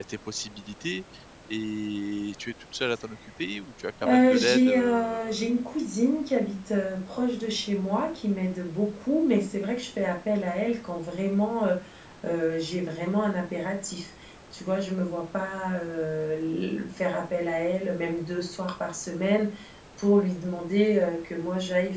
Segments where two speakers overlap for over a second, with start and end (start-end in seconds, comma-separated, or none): 4.0-5.6